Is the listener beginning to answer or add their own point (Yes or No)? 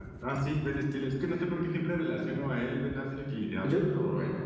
No